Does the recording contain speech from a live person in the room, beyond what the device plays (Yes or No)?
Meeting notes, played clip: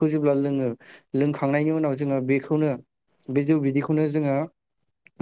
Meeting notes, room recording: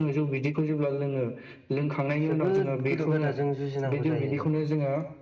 Yes